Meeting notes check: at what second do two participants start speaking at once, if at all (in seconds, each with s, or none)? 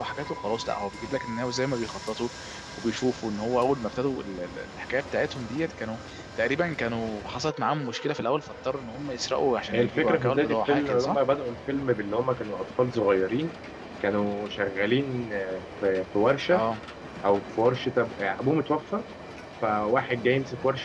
9.7 s